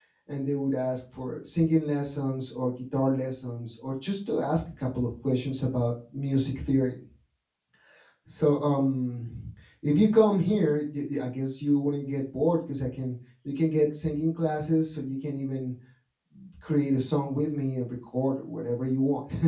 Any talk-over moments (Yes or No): No